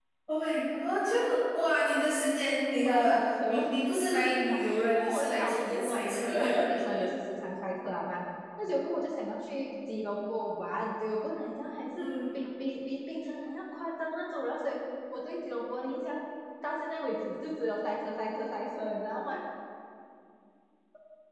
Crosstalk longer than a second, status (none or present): present